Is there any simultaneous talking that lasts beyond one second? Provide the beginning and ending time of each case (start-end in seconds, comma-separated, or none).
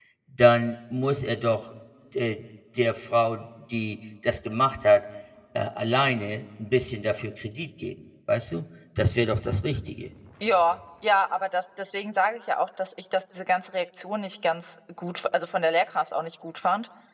none